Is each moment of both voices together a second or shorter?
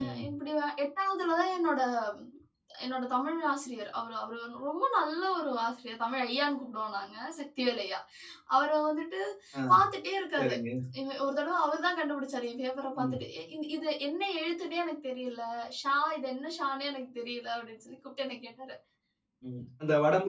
Yes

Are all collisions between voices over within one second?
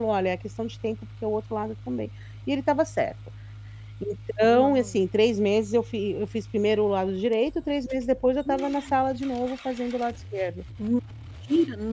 Yes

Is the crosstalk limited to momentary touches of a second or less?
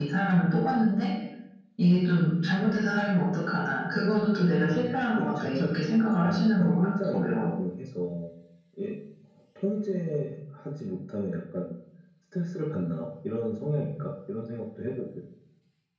No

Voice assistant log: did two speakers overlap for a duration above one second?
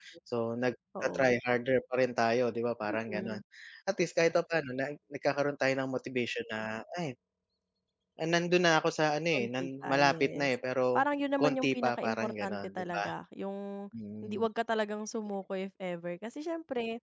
Yes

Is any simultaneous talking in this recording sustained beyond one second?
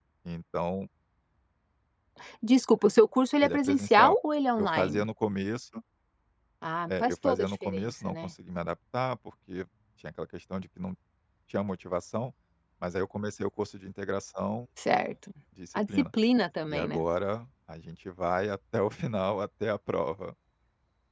Yes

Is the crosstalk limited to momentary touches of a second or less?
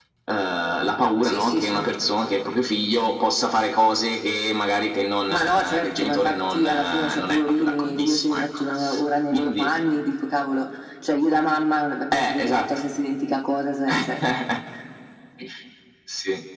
No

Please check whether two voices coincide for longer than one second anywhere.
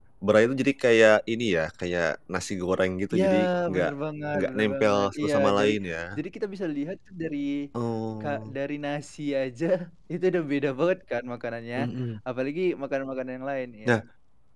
Yes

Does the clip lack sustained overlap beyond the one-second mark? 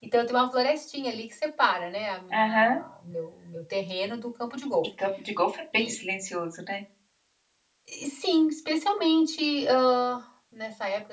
Yes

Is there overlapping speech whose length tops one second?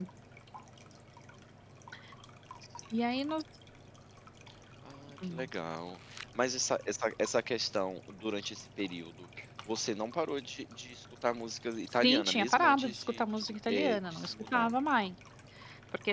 Yes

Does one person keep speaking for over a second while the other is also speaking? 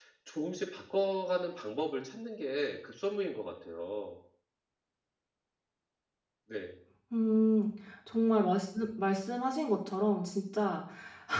No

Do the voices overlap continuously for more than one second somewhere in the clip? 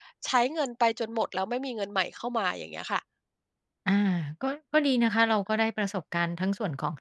No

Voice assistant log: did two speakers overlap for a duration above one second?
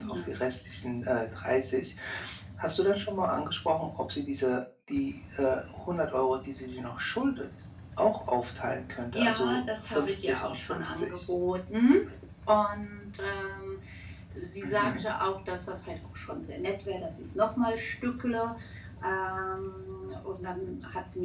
Yes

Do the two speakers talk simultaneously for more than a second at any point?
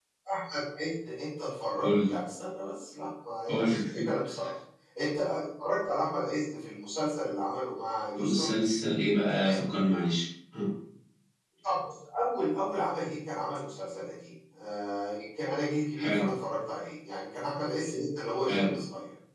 No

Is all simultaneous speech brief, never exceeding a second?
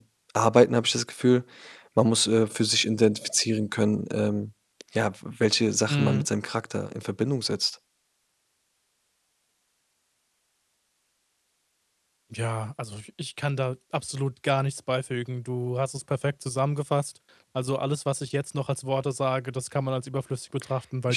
Yes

